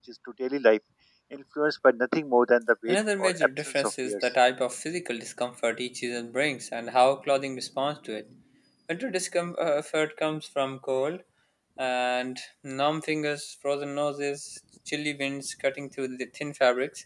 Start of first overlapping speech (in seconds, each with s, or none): 2.9 s